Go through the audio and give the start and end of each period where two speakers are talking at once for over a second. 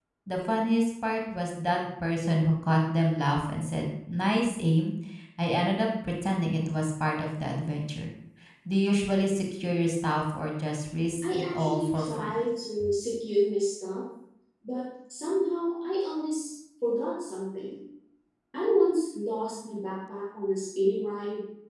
11.2-12.4

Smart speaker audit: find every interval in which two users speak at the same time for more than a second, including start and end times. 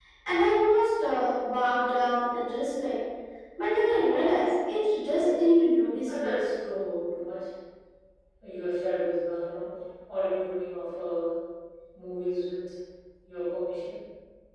none

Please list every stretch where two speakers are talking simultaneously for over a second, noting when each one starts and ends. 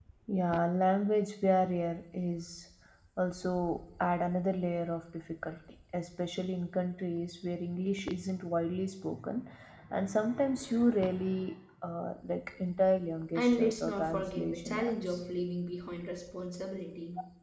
13.3-15.2

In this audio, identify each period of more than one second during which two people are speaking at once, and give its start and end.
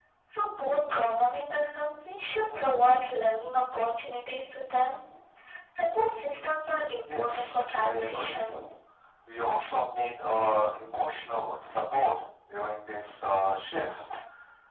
7.0-8.4

